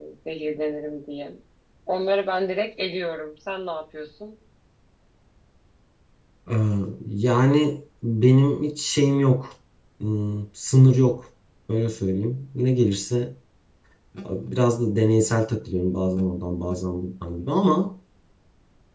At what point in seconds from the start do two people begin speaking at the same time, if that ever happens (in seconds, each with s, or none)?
none